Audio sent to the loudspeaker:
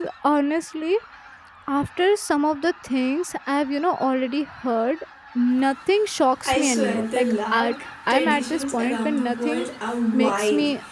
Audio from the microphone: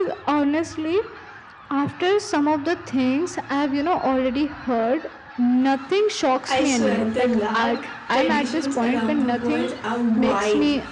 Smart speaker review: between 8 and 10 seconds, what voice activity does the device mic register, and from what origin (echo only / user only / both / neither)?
echo only